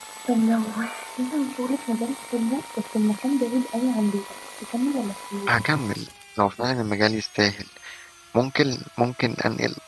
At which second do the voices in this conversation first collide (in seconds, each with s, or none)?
none